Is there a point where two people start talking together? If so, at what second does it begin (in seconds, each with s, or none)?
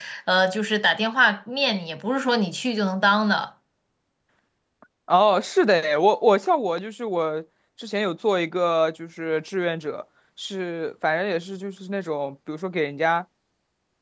none